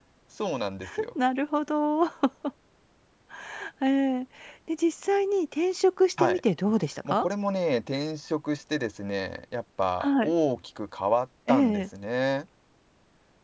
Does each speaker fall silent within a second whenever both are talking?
Yes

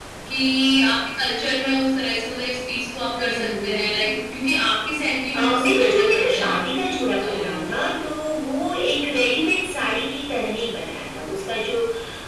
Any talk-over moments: Yes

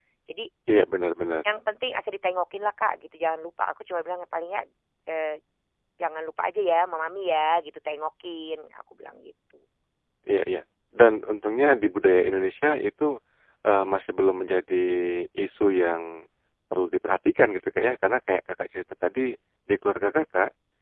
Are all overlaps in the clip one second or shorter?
Yes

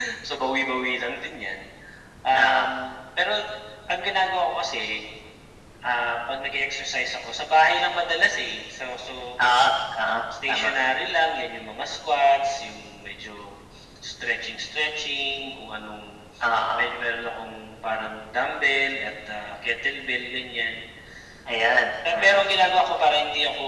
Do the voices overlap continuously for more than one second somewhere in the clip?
No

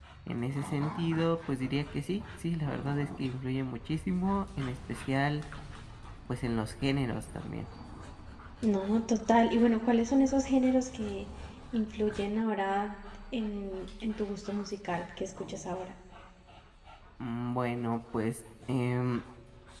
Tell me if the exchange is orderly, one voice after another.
Yes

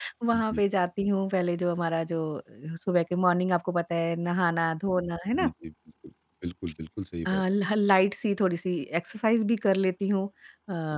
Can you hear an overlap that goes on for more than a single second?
No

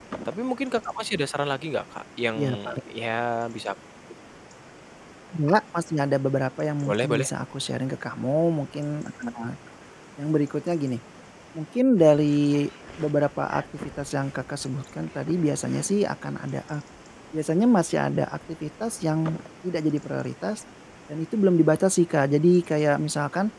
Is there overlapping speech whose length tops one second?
No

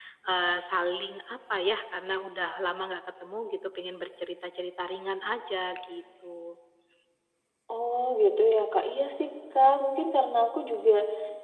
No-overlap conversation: Yes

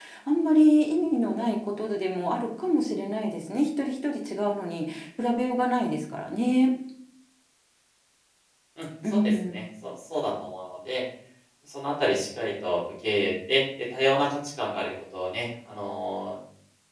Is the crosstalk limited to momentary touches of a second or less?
Yes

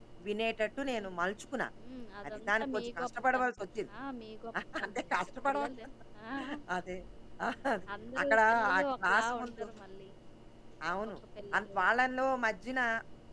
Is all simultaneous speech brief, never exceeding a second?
No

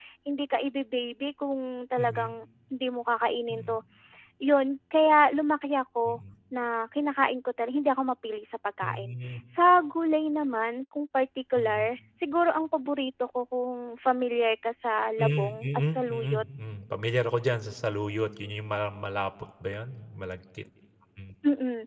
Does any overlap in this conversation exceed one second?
Yes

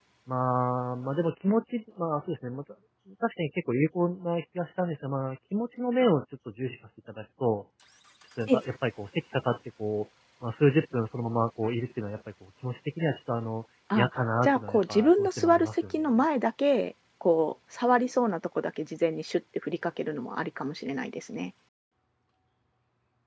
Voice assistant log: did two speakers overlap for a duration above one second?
Yes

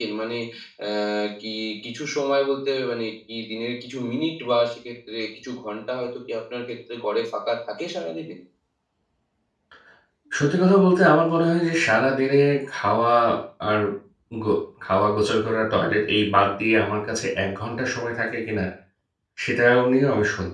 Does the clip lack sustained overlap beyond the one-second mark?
Yes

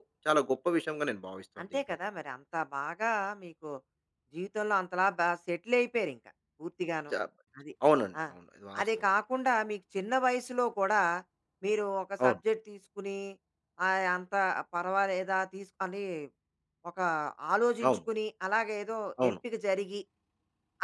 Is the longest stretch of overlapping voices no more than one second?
Yes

